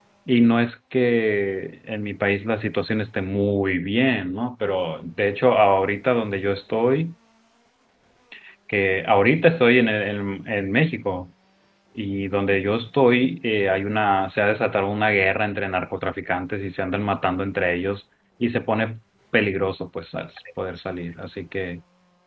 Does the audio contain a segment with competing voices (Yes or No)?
No